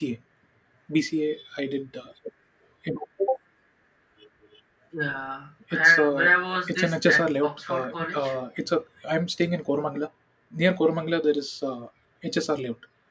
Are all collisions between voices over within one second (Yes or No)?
No